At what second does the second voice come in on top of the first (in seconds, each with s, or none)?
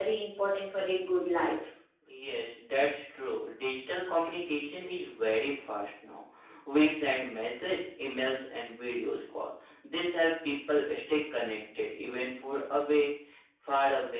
none